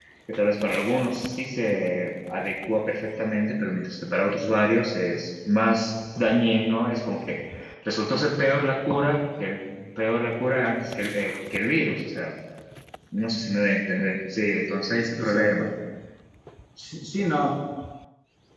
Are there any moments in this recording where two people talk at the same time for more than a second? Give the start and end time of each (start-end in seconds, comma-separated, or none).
none